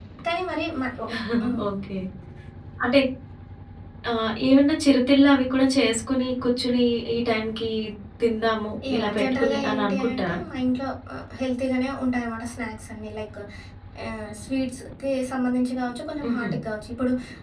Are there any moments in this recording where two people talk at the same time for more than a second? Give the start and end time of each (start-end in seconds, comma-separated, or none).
8.9-10.4